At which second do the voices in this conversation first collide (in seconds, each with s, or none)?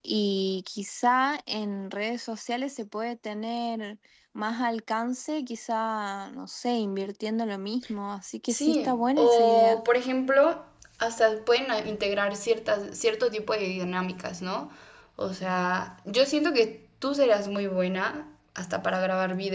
8.5 s